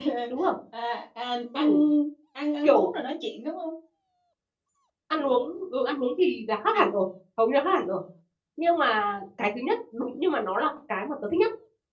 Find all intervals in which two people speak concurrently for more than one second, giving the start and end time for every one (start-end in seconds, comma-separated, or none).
none